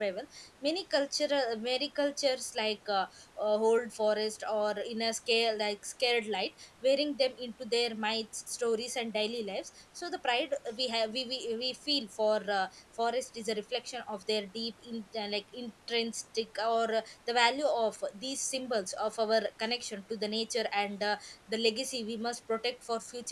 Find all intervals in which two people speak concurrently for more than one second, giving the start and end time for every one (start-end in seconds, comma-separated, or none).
none